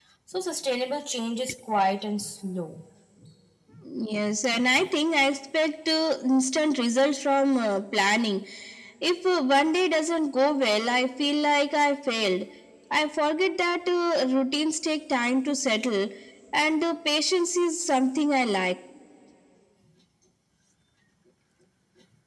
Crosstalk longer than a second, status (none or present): none